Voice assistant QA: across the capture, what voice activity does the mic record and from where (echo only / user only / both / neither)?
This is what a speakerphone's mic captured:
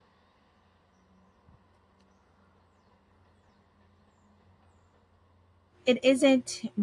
user only